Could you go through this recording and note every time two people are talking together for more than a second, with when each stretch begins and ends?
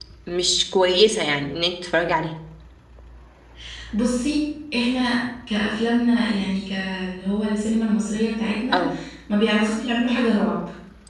none

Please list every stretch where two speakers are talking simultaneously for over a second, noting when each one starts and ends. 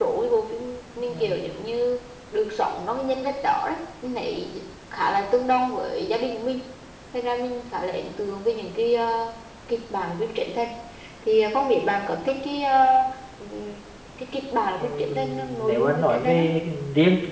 14.8-16.5

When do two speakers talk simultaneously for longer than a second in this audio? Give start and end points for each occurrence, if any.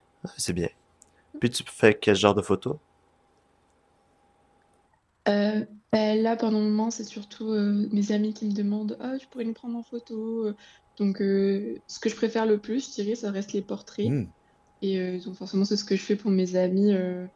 none

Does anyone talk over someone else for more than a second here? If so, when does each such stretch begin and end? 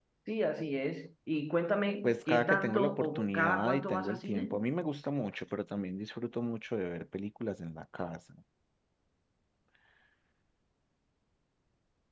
2.0-4.6

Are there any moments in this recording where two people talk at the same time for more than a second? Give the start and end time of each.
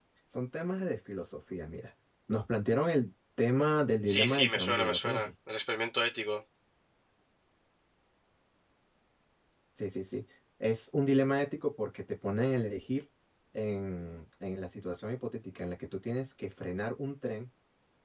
4.1-5.3

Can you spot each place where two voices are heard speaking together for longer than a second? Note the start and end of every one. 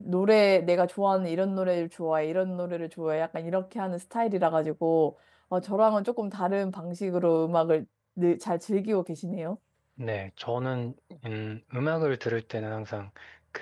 none

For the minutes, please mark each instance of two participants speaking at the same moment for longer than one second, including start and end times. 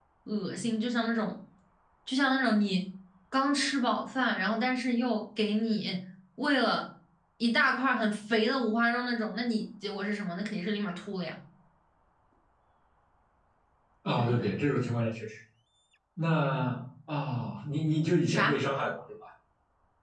none

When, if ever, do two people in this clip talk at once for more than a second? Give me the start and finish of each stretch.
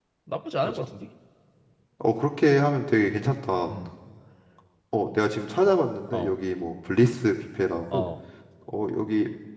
none

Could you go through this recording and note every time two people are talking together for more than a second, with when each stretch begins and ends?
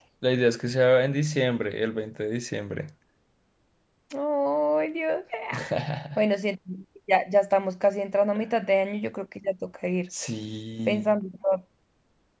none

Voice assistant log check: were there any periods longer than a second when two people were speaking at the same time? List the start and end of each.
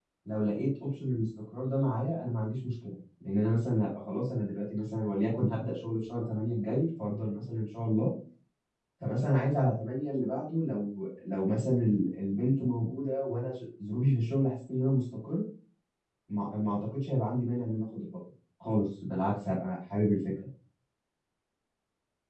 none

